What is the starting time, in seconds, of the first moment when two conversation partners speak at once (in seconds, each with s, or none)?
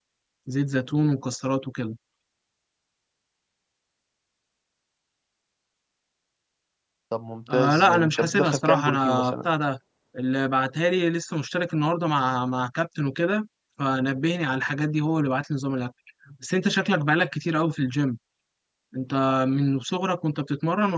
7.5 s